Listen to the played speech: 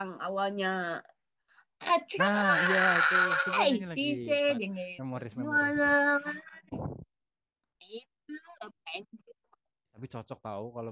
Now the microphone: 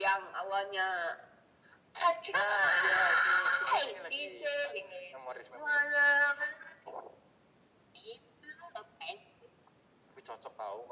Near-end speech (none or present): none